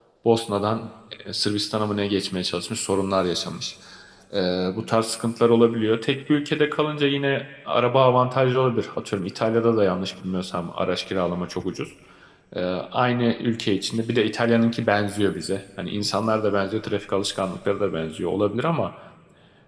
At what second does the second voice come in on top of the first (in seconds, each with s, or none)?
none